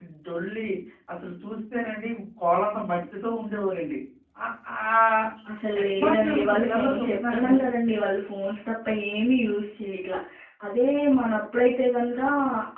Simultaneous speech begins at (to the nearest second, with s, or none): 6 s